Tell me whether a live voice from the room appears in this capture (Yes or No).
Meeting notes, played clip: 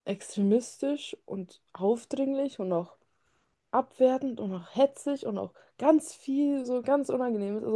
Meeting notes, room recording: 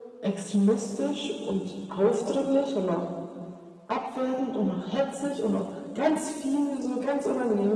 No